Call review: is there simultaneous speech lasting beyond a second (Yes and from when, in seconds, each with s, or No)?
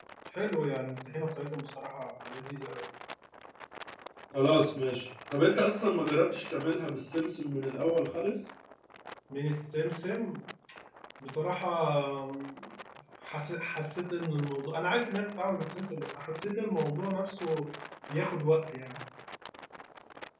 No